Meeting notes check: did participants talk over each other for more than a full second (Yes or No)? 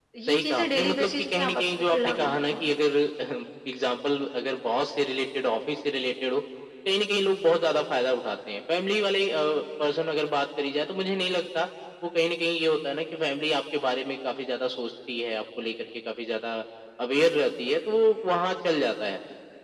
Yes